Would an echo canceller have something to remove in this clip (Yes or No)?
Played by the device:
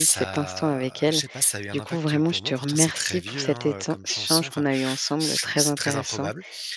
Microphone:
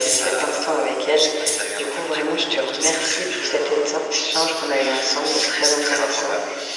Yes